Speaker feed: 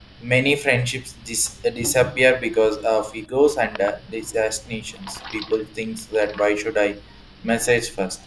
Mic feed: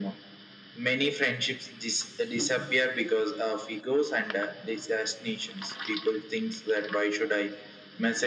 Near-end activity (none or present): none